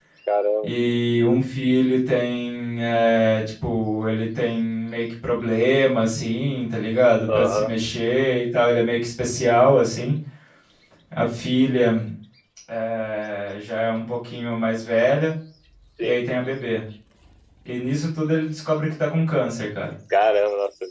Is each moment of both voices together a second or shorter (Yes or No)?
Yes